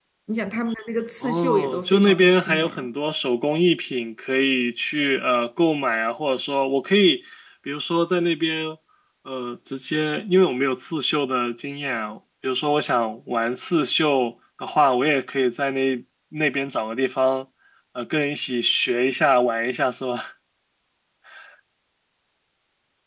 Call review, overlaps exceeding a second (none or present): present